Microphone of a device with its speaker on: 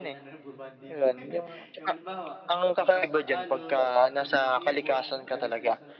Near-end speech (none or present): present